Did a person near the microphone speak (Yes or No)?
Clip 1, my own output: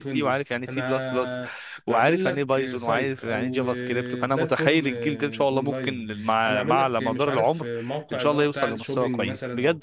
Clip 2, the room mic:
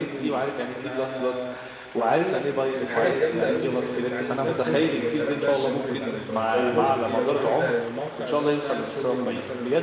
Yes